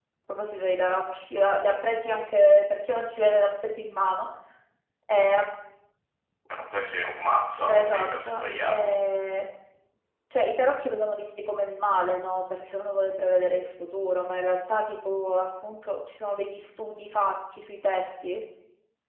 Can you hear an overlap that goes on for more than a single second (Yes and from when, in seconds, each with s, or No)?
Yes, from 7.7 s